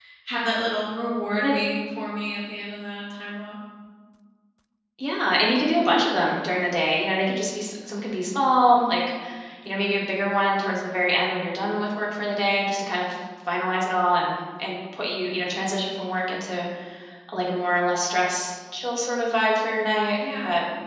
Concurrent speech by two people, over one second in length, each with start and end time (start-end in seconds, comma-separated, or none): none